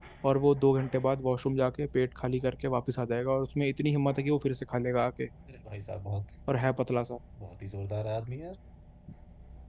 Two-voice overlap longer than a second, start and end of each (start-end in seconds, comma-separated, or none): none